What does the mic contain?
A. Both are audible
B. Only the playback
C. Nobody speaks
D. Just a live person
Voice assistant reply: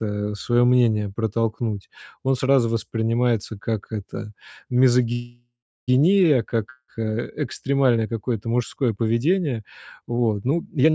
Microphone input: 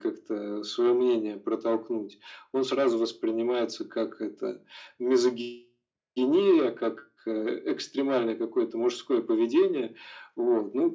B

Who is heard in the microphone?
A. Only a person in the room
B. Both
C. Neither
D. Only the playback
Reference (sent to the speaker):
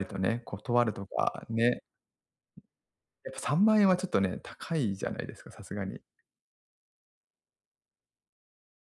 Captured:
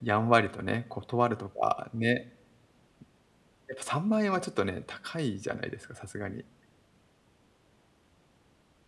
D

